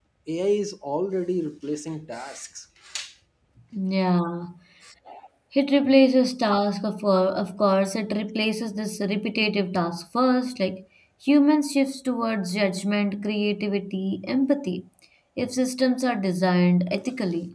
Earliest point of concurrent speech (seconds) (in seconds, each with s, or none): none